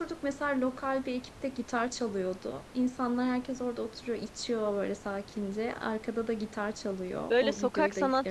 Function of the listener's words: taking over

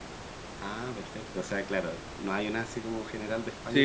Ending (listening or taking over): taking over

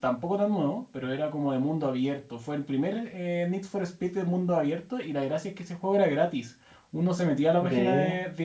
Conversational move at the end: listening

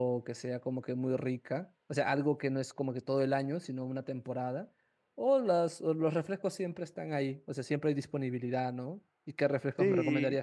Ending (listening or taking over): listening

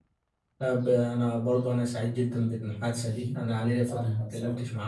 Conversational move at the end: listening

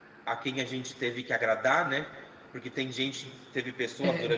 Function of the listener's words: listening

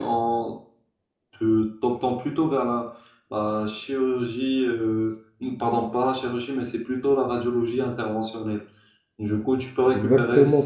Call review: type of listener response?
taking over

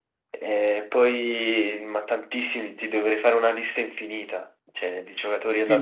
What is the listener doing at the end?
taking over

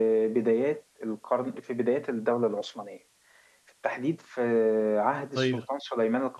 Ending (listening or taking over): listening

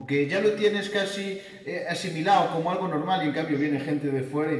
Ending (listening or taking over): listening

